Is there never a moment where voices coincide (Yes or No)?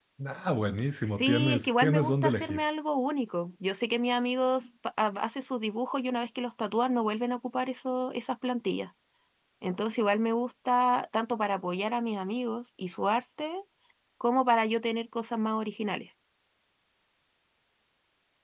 No